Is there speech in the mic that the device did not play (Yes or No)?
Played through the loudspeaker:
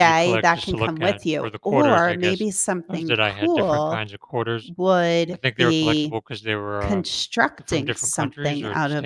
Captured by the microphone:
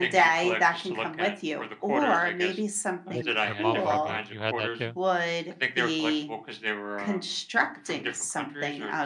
Yes